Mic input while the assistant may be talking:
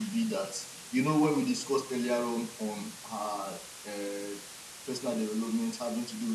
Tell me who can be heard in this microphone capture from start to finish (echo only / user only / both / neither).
echo only